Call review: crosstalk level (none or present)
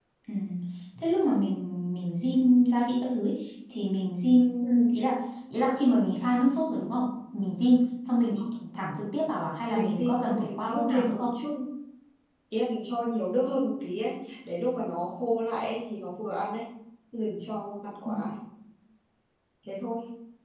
present